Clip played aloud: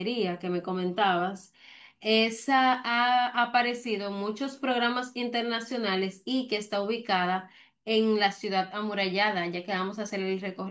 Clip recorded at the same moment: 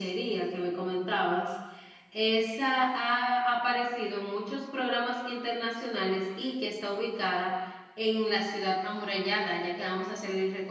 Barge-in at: none

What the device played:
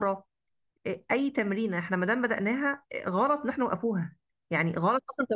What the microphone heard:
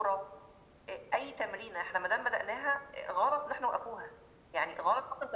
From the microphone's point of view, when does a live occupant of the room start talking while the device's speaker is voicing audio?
none

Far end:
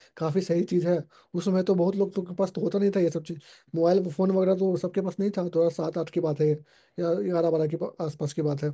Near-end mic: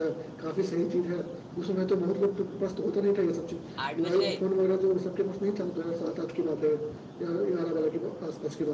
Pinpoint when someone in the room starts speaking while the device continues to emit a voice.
4 s

